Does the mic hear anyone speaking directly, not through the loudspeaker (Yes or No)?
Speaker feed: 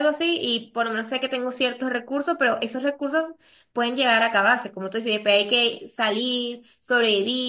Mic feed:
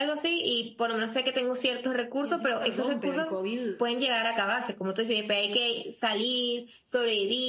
Yes